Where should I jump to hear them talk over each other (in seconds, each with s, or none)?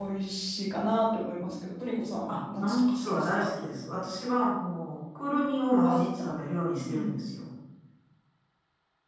2.3 s